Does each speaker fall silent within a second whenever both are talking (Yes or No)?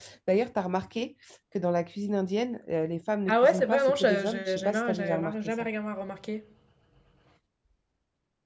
No